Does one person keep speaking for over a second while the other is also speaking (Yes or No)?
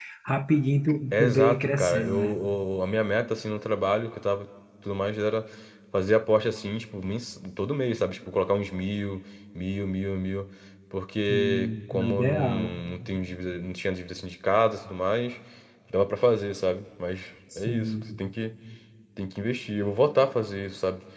Yes